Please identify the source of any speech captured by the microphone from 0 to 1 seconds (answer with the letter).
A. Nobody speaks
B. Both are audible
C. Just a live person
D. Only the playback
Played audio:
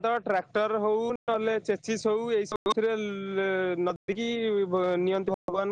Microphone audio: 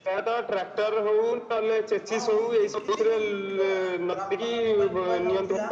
D